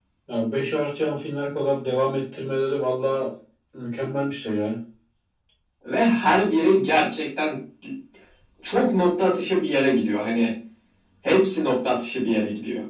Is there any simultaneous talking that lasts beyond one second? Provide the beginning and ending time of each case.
none

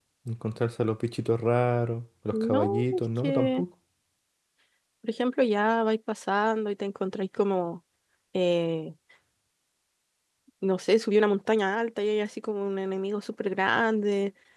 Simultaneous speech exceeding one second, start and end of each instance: 2.3-3.6

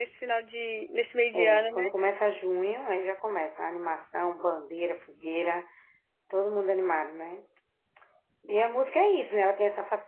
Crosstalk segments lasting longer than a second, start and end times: none

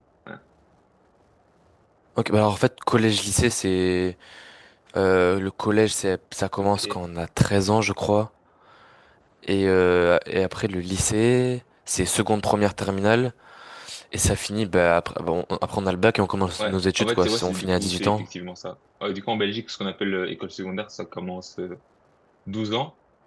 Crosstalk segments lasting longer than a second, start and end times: 16.6-18.3

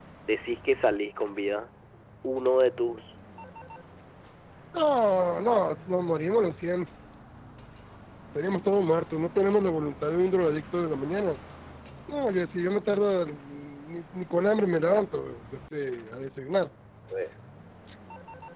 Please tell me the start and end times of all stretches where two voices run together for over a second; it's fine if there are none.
none

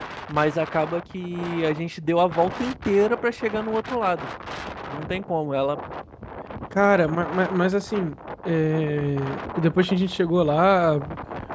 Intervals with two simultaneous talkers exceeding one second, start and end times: none

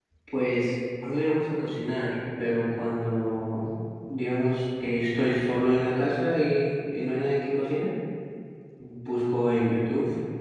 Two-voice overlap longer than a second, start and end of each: none

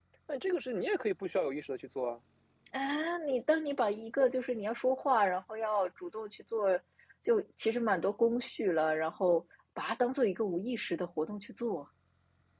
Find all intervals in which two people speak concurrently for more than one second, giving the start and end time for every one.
none

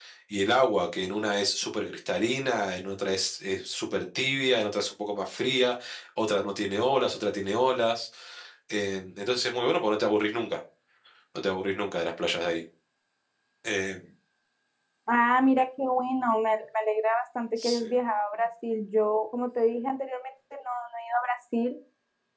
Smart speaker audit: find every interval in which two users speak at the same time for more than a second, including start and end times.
none

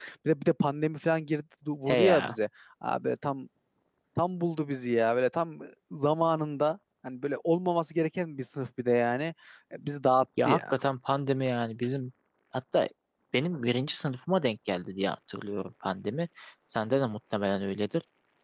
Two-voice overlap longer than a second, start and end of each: none

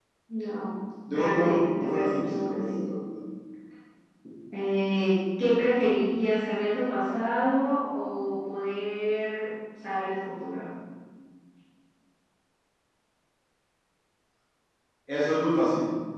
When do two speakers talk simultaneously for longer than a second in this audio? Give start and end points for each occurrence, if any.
1.1-2.6

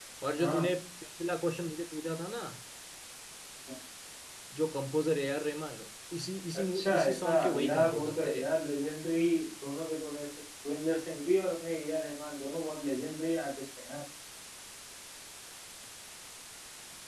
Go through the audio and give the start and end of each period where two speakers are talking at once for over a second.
6.7-8.4

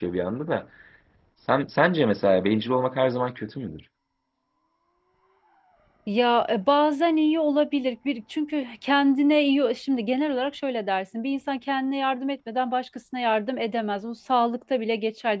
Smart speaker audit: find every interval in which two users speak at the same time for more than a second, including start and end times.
none

